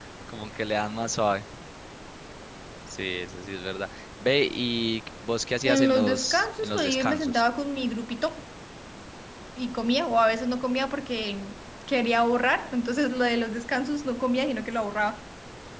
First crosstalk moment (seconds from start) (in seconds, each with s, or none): 5.6 s